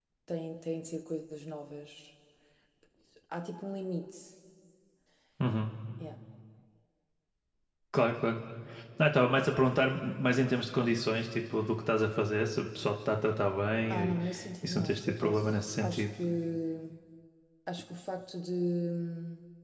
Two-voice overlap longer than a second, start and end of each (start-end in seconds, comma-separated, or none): 14.6-16.0